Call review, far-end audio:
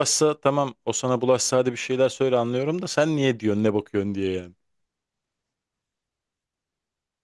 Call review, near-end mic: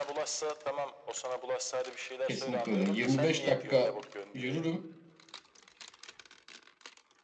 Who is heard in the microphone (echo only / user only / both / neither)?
both